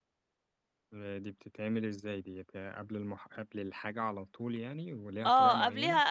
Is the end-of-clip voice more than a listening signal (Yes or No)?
Yes